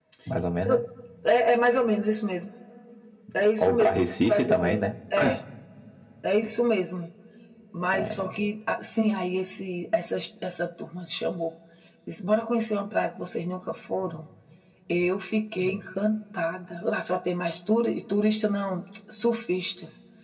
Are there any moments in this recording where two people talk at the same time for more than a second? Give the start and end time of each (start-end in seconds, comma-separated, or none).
3.6-4.9